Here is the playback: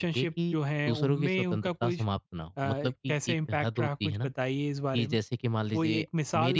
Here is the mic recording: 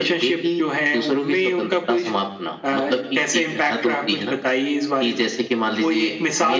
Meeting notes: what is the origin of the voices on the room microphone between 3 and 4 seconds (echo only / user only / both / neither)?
echo only